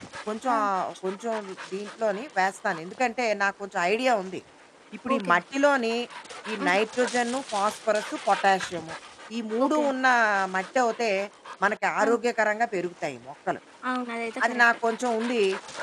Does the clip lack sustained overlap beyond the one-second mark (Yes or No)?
Yes